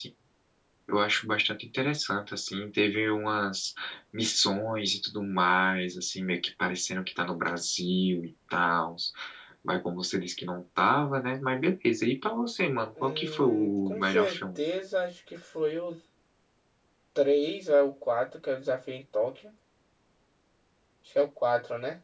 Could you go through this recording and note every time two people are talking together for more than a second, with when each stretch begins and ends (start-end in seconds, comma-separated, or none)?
13.0-14.6